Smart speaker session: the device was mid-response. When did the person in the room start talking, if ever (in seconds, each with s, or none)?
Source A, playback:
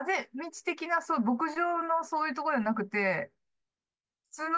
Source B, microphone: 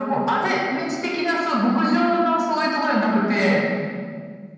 none